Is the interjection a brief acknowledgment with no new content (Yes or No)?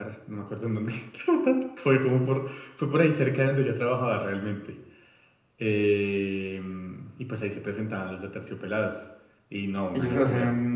No